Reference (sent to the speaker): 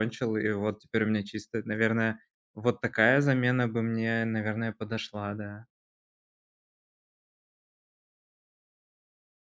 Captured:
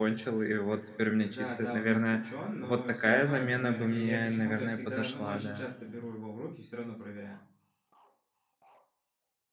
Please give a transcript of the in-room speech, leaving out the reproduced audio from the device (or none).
Да, да, он отключен, но все равно, например, я я почему-то всегда, ну, очень часто беру его в руки, все равно проверяю.